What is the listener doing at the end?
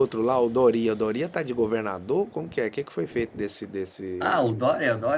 taking over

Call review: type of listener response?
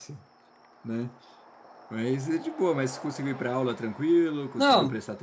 taking over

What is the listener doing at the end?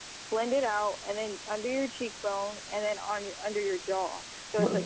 taking over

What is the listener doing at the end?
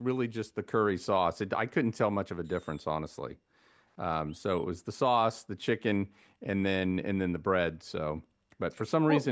listening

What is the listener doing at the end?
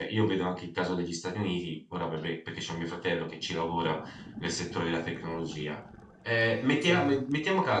listening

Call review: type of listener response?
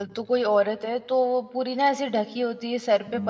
listening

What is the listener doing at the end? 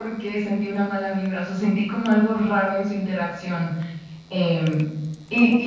taking over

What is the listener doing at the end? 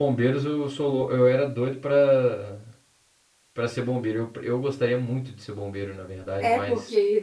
taking over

